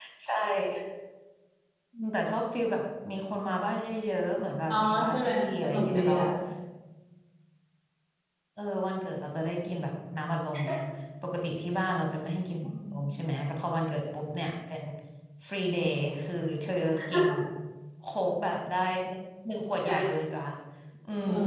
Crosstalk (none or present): present